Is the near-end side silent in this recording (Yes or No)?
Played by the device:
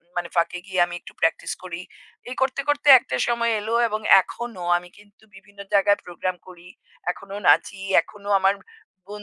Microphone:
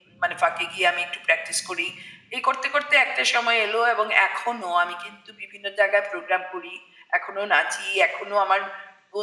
Yes